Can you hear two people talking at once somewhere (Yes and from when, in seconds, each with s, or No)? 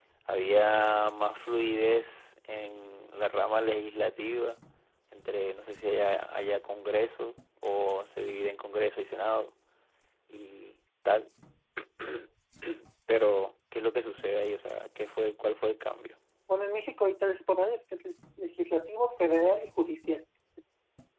No